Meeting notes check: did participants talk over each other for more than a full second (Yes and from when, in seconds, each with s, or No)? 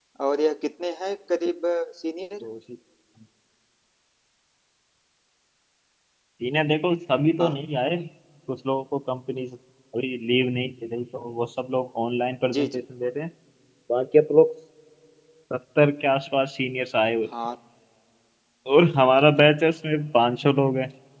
No